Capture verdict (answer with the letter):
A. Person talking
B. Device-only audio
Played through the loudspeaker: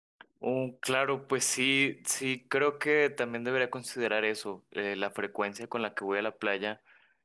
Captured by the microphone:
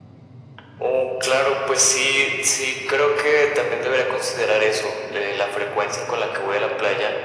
B